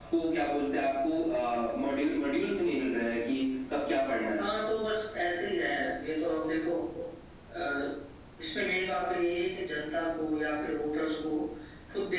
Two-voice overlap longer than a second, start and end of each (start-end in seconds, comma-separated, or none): none